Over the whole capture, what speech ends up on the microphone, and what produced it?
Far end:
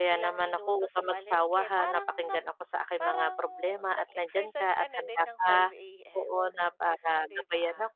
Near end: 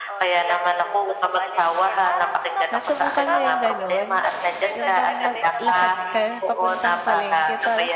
both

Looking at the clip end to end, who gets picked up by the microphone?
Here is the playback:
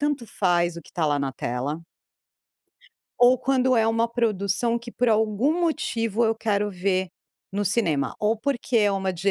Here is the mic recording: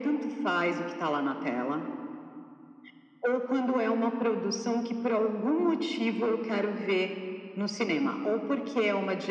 echo only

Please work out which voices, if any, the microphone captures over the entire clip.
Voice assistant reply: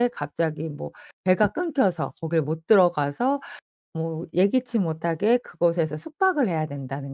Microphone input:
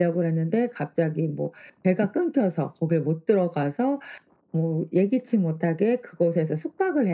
echo only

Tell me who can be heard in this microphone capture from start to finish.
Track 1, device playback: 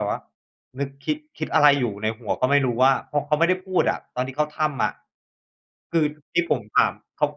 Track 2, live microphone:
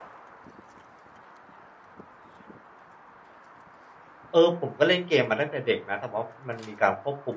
user only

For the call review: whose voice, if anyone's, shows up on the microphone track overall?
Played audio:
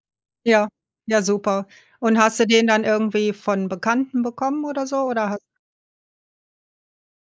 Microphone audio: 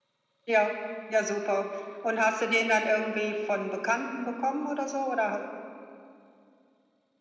echo only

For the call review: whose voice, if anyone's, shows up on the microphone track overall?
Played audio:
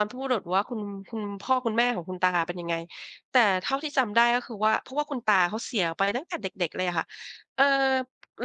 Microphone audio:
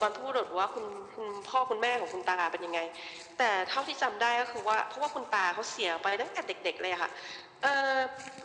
echo only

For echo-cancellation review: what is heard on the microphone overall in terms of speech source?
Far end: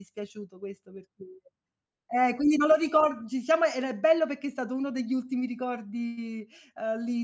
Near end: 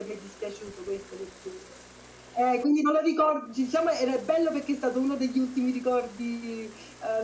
echo only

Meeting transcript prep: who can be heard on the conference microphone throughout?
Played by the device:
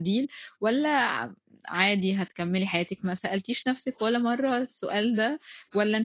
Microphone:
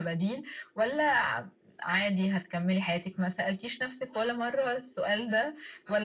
echo only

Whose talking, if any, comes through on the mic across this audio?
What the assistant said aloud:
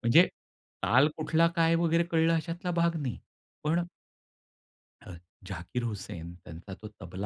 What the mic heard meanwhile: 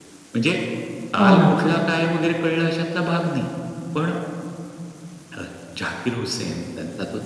both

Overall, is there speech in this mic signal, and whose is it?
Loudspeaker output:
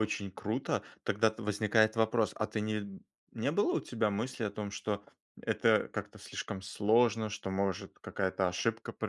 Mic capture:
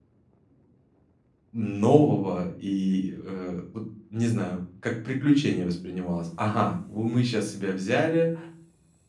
user only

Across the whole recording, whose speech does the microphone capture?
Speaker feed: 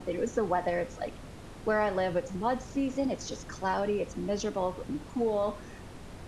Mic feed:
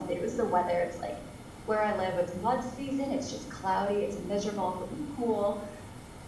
echo only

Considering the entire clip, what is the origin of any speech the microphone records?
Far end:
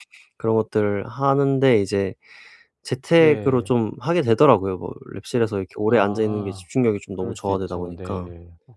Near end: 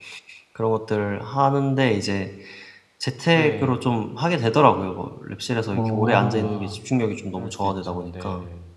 both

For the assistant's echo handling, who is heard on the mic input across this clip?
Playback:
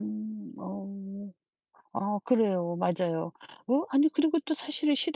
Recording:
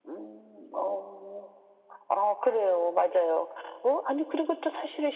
echo only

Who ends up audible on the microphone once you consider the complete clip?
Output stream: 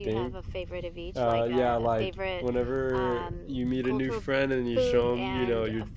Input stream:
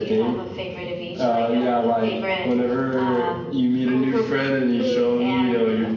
echo only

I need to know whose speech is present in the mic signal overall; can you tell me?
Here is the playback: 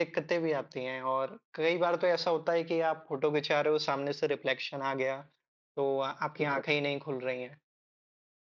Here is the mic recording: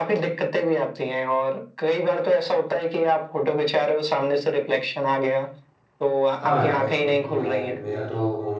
both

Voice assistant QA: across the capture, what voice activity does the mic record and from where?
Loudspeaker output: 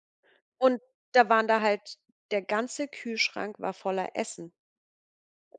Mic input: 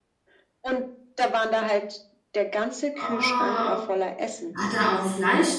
both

